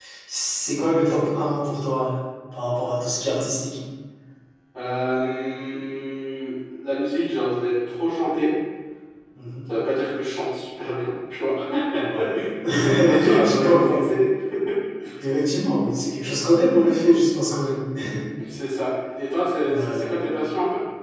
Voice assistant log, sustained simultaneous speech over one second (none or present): present